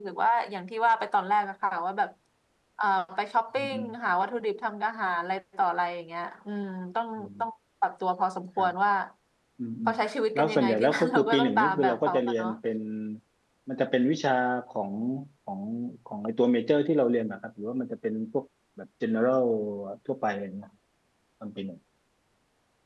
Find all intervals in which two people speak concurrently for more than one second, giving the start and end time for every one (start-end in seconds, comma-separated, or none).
10.3-12.5